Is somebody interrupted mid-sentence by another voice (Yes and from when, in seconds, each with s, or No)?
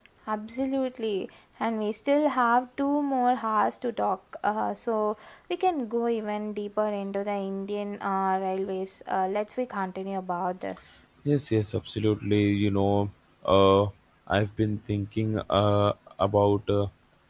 No